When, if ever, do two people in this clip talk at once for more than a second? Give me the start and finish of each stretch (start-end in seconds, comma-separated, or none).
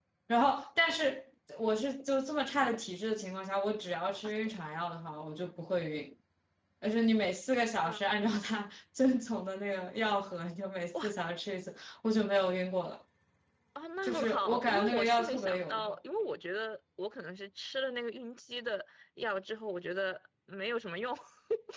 14.0-16.0